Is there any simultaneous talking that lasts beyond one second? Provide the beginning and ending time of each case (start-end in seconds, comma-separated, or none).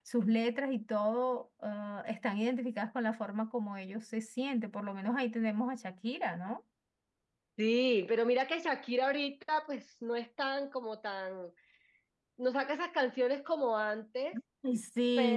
none